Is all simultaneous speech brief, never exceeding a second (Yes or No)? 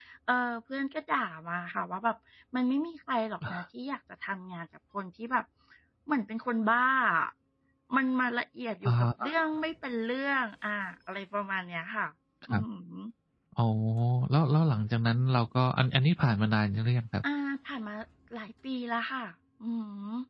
Yes